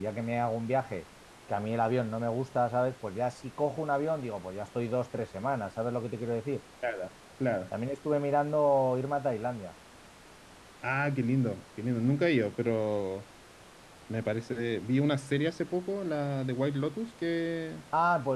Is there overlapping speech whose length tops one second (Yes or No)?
No